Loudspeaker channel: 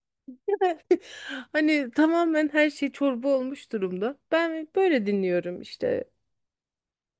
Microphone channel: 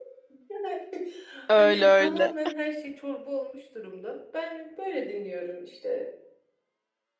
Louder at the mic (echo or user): user